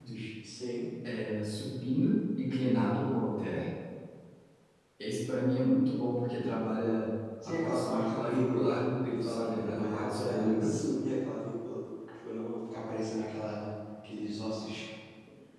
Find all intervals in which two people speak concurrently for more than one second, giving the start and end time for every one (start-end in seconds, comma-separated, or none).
7.5-8.7, 9.2-10.7